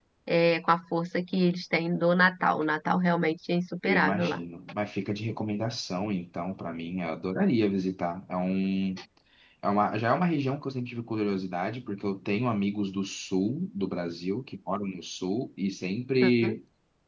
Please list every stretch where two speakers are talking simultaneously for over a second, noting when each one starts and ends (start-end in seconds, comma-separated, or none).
none